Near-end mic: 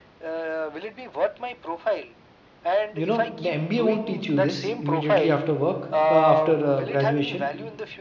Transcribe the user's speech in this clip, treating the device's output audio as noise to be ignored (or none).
You know, the MBA won't teach you this immediately after work, uh, after uh, graduation.